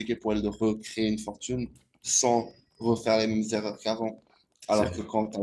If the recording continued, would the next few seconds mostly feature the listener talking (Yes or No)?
No